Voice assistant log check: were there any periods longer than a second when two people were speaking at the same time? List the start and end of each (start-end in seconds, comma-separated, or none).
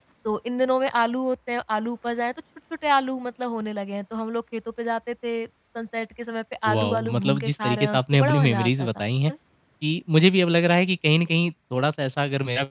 6.7-8.9